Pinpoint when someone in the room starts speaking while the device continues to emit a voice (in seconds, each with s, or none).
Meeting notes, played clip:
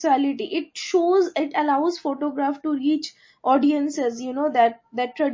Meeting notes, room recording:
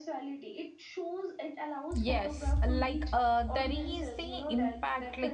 2.0 s